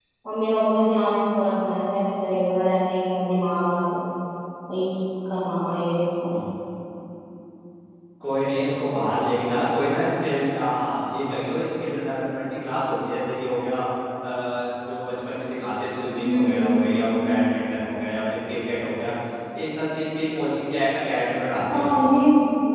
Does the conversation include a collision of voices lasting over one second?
No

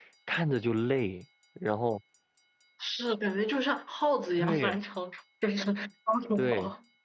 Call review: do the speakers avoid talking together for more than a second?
Yes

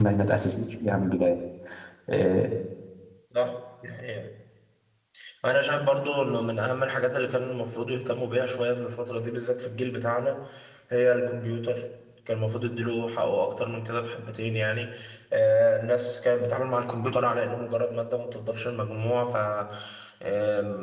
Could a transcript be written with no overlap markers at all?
Yes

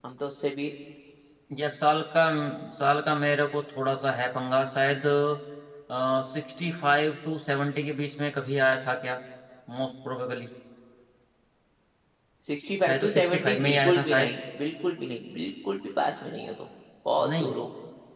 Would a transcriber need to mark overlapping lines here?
Yes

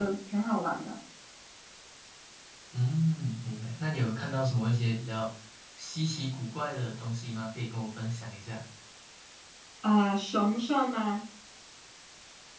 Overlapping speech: No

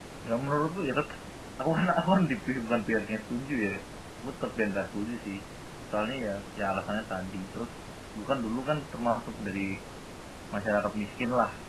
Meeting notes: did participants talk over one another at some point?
No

